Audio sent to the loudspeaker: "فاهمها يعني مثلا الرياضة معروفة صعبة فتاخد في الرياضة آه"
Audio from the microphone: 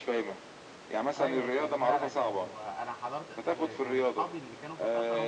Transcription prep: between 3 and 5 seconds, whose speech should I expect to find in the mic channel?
both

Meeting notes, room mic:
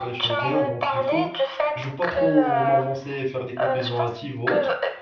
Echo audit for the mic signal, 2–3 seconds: both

